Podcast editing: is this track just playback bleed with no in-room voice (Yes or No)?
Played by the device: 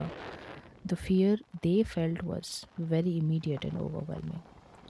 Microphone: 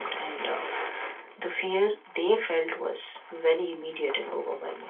Yes